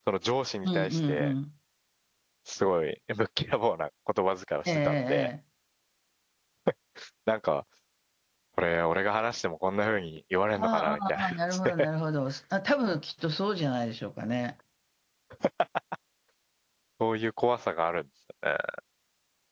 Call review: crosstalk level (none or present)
present